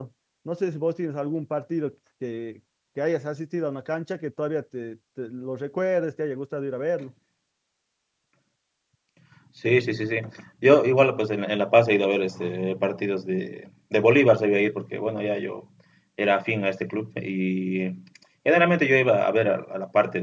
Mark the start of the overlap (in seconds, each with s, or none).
none